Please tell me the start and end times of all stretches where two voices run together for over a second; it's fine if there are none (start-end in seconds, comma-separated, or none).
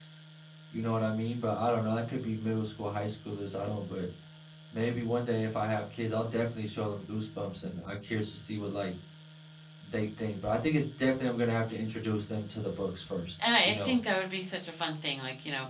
none